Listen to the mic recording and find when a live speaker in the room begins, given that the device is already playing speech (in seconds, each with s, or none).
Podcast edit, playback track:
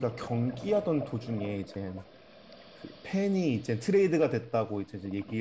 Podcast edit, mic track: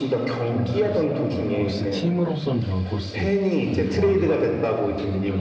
0.4 s